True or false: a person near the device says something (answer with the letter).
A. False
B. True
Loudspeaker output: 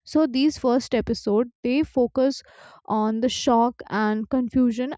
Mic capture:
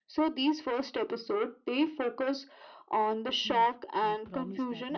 B